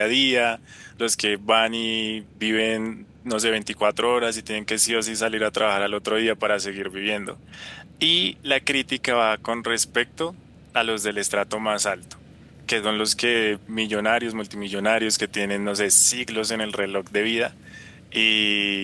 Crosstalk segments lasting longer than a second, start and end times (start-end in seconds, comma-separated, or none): none